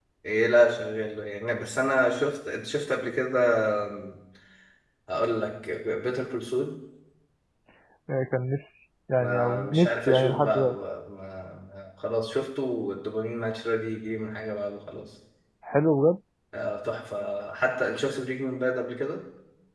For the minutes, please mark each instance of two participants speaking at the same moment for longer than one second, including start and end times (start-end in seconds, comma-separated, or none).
9.2-10.8